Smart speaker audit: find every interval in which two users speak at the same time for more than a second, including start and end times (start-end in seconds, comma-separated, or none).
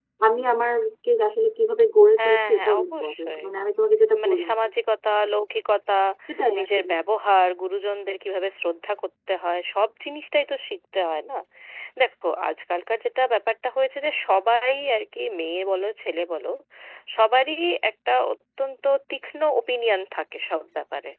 2.2-3.4